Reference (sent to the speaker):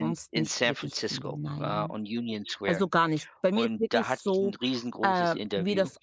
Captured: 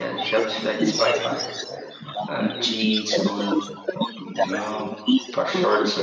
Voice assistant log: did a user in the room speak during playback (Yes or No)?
Yes